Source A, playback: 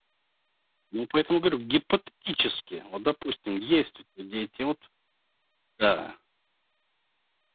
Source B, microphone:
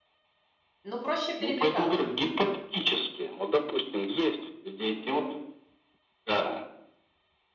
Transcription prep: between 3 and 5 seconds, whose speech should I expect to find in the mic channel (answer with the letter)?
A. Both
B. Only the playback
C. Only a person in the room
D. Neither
B